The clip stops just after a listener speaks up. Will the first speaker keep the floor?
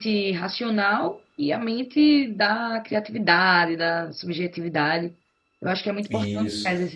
Yes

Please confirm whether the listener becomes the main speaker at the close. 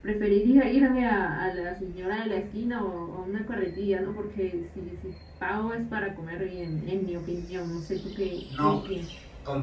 Yes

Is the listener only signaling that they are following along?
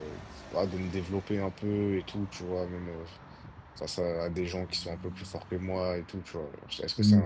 Yes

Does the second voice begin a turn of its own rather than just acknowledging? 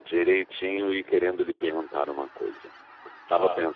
No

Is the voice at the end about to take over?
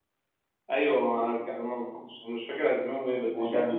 No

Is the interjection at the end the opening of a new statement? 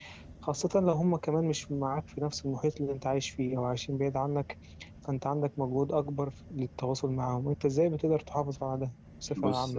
Yes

